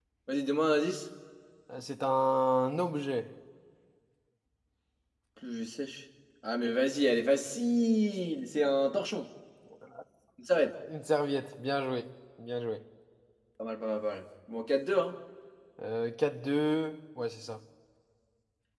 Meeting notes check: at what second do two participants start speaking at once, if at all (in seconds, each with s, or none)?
none